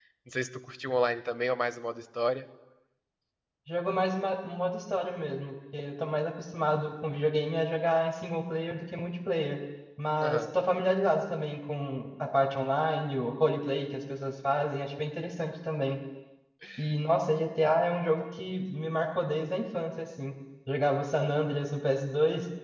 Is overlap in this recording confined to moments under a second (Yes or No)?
Yes